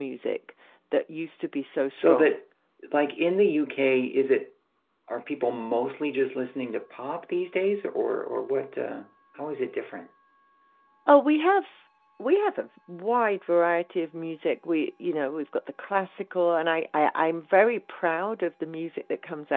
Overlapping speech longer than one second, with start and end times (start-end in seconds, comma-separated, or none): none